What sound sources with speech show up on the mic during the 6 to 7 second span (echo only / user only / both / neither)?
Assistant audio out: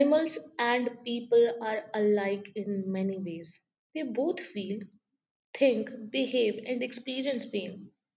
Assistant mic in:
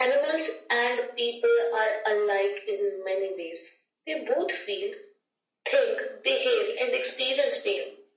echo only